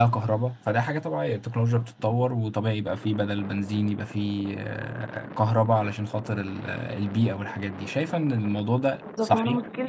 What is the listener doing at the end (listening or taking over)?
taking over